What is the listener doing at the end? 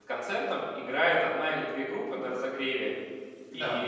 listening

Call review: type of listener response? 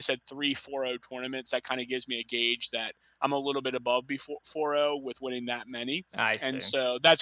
listening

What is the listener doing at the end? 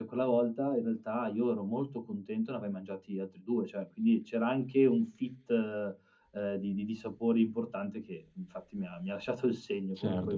taking over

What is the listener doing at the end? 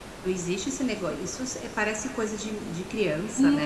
taking over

